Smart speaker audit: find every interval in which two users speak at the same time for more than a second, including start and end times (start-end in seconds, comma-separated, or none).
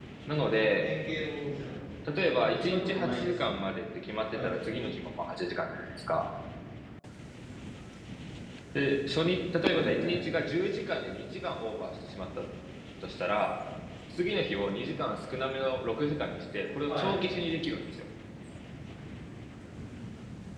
2.3-3.6